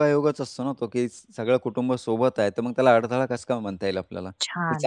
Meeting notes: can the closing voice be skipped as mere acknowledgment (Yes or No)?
No